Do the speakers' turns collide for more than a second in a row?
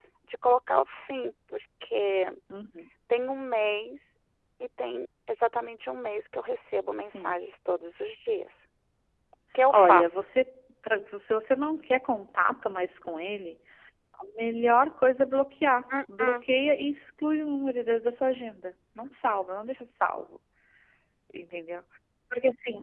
No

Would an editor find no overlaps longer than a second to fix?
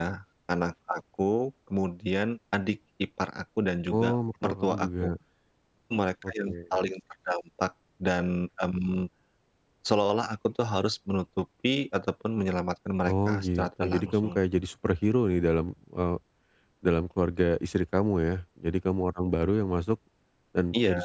No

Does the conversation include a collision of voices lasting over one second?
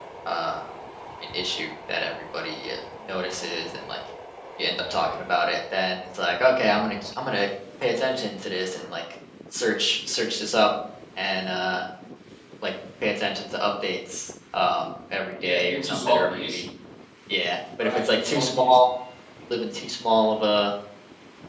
Yes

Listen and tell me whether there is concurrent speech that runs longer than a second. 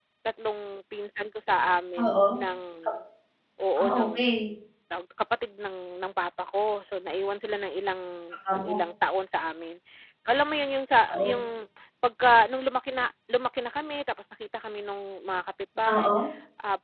No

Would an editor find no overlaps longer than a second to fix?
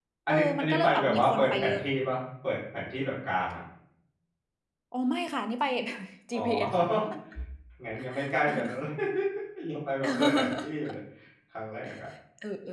No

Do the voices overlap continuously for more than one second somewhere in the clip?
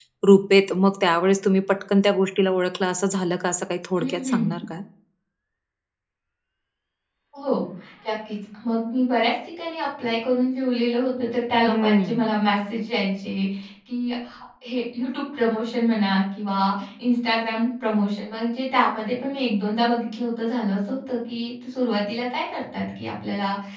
No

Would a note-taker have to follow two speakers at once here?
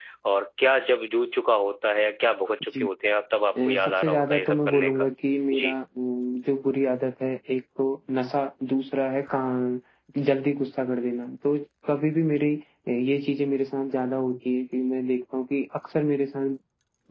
Yes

